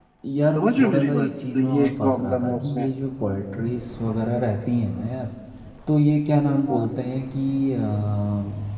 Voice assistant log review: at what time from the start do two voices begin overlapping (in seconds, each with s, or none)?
0.6 s